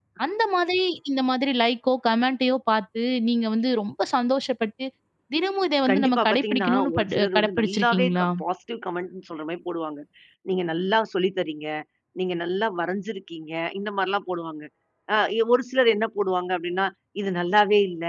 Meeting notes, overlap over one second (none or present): present